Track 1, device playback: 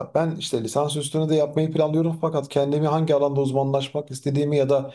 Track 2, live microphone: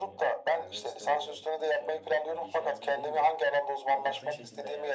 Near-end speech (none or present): present